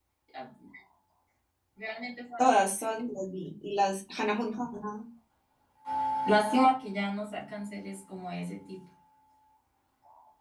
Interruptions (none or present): none